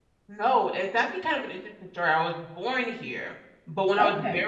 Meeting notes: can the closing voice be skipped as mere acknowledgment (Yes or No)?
Yes